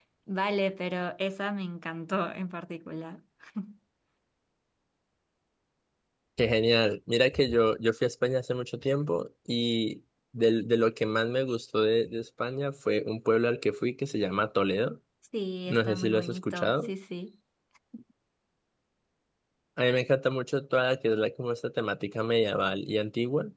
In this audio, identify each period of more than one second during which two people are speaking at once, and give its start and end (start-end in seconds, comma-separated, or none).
15.7-16.9